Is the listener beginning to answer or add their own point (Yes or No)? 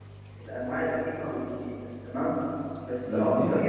No